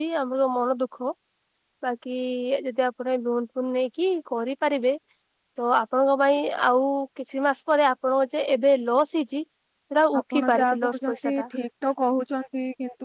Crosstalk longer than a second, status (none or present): present